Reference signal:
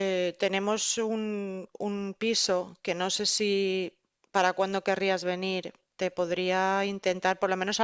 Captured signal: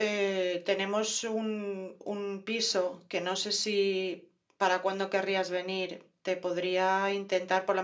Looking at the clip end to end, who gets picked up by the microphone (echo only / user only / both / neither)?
echo only